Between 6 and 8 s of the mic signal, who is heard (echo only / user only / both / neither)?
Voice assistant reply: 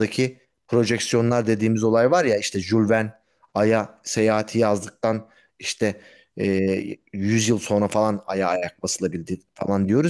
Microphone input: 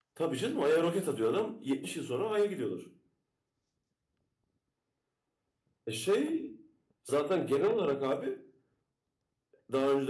user only